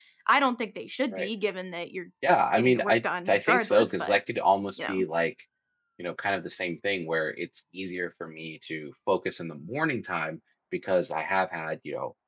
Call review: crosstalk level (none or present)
present